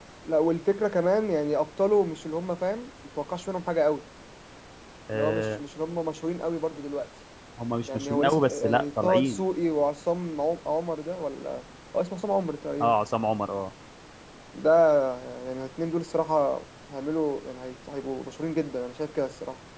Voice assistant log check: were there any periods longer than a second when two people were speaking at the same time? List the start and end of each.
7.9-9.4

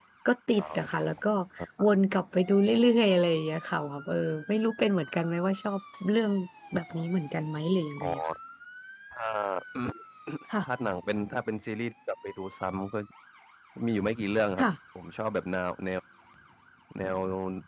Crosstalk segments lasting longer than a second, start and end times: none

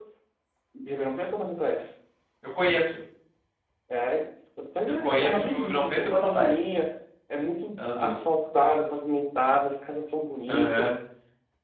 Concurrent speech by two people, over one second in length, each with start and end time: 4.9-6.7

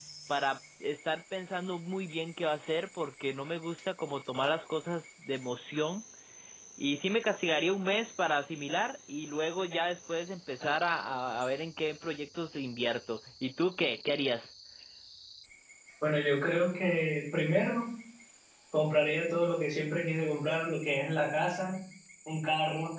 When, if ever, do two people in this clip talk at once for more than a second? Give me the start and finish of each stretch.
none

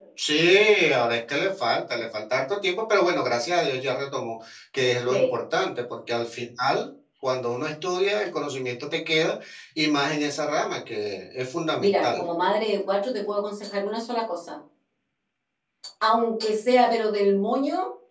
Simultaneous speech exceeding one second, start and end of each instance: none

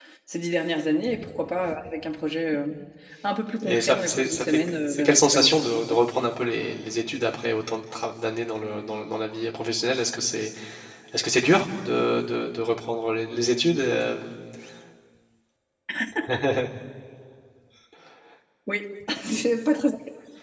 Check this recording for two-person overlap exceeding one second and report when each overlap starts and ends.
3.6-6.0

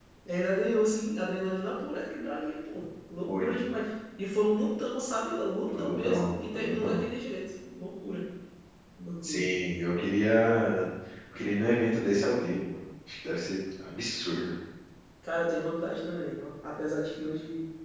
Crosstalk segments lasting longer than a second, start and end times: 5.7-7.0

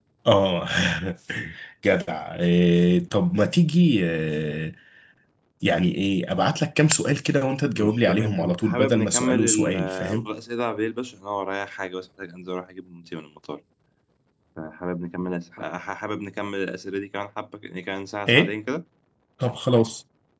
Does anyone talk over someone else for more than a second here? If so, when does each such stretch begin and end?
7.8-10.3

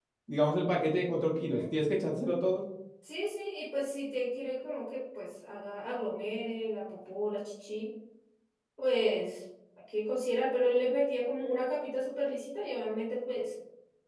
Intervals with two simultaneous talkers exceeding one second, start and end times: none

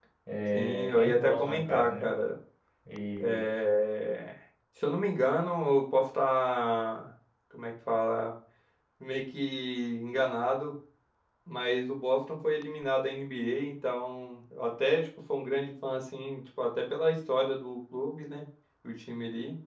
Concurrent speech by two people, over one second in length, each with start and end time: 0.5-2.1

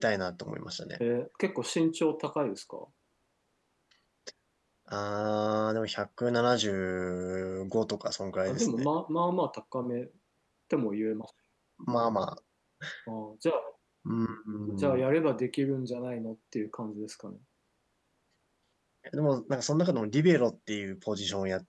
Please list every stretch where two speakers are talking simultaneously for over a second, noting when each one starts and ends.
none

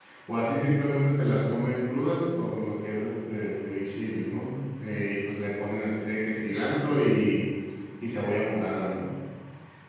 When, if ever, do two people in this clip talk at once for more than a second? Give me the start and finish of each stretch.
none

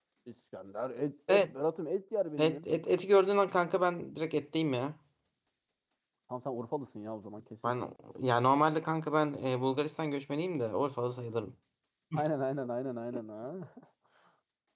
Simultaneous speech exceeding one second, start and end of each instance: none

